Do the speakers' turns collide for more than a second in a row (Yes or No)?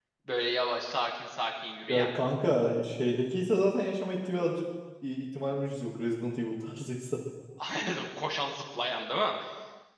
No